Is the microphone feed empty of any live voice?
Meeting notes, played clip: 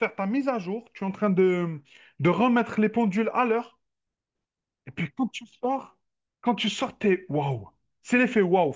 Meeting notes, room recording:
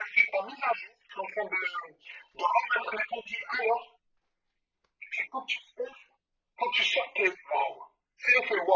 Yes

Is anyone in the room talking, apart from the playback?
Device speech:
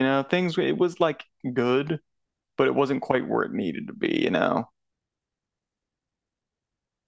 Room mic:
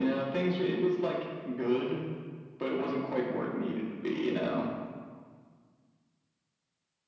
No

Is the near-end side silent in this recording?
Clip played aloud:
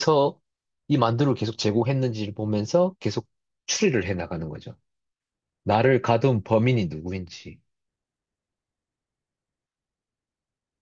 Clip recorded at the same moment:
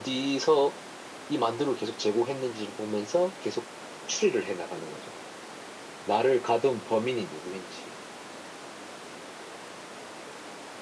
Yes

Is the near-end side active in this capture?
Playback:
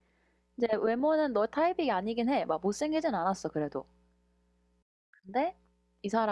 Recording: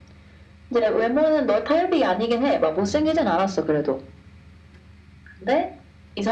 Yes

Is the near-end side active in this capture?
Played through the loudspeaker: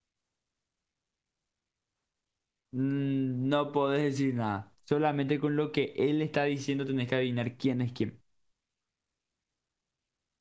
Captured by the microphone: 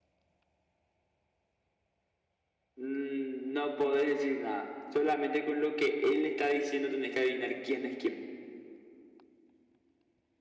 No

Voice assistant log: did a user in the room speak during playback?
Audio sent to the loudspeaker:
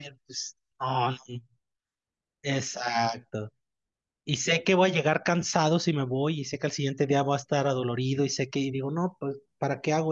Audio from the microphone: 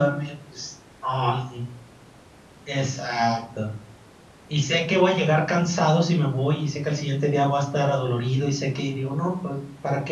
No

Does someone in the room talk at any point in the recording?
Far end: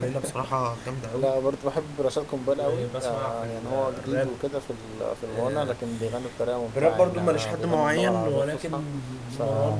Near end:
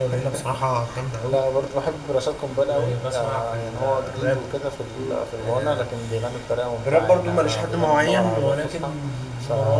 Yes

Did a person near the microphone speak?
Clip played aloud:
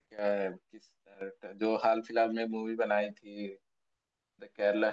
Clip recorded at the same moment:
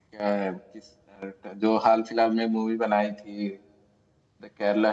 No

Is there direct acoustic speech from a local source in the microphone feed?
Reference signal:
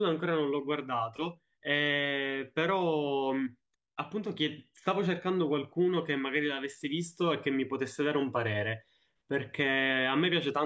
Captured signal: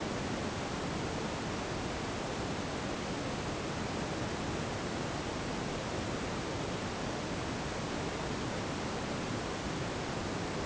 No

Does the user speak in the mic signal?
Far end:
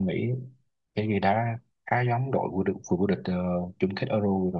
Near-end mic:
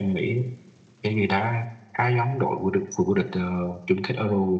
No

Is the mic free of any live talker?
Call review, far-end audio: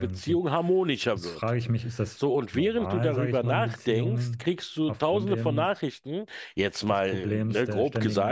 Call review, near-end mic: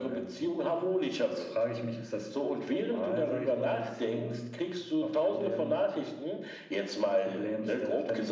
Yes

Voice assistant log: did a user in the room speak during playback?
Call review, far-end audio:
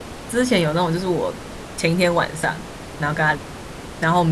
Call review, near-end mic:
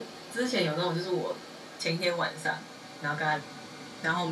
No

